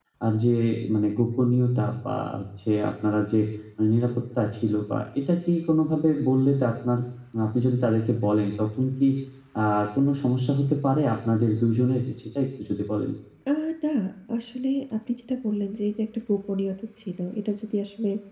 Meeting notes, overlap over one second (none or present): none